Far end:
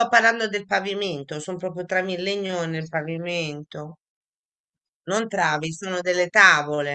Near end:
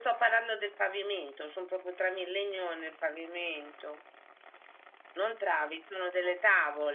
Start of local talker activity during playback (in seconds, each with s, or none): none